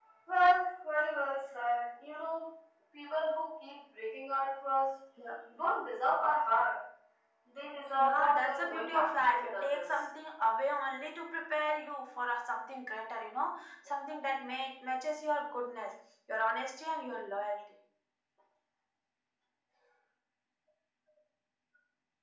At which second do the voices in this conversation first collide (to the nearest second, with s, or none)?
8 s